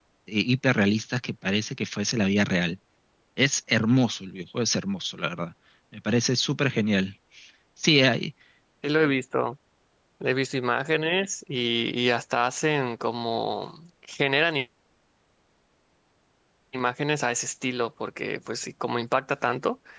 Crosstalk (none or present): none